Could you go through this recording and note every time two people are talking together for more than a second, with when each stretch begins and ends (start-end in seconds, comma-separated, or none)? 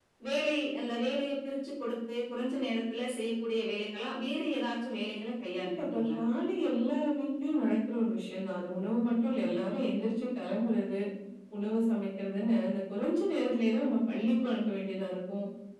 none